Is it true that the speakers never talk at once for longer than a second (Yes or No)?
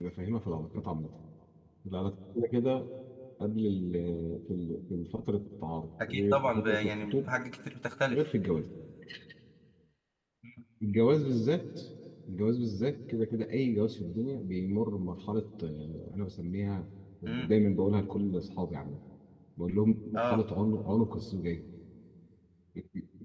No